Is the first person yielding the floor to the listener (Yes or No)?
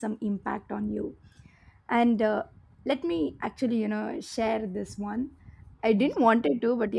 No